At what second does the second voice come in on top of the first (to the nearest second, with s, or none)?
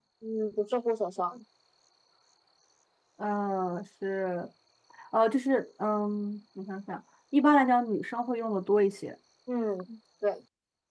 none